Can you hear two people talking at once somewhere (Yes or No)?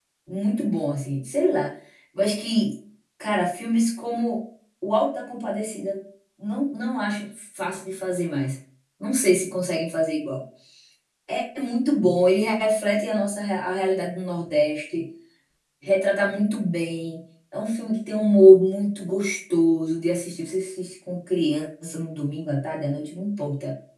No